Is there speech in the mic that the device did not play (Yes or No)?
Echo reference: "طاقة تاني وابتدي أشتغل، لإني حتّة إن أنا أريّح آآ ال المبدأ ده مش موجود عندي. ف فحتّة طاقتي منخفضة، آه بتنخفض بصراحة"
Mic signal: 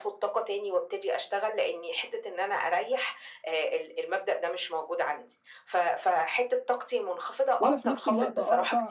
Yes